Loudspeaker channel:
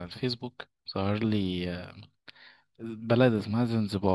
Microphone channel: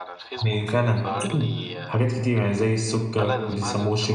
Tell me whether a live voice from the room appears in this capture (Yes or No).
Yes